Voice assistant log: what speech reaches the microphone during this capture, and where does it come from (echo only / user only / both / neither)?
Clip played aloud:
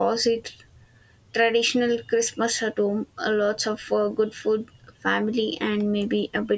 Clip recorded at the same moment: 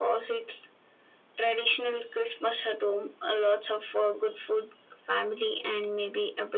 echo only